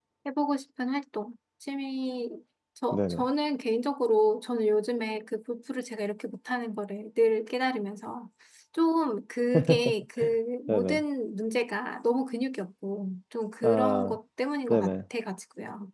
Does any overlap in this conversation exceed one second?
No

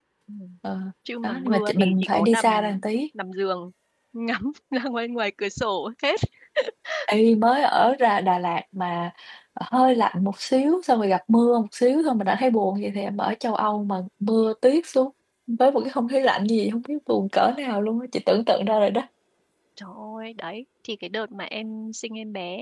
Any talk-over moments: Yes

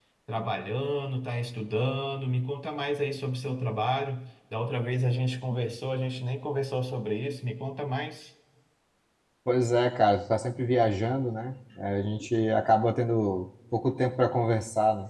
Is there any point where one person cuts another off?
No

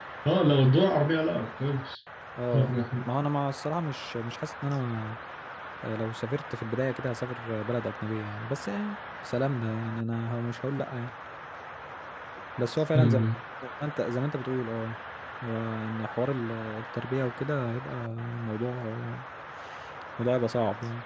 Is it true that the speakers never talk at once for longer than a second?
Yes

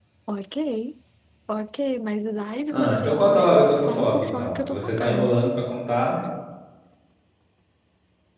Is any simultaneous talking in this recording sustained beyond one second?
Yes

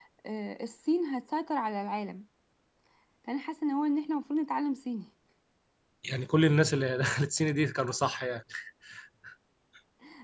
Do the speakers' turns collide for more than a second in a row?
No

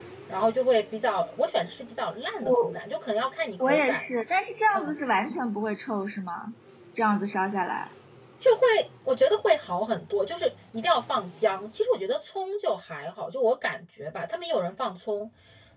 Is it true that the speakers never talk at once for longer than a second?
Yes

